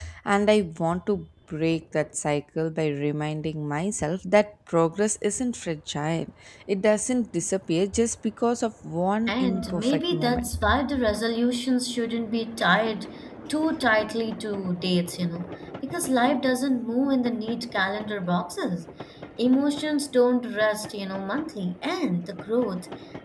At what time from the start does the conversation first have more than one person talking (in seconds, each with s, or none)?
9.3 s